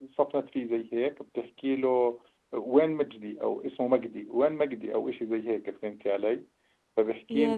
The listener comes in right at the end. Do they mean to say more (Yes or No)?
No